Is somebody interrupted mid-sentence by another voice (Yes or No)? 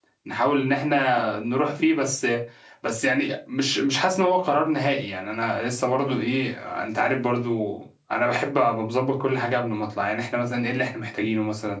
No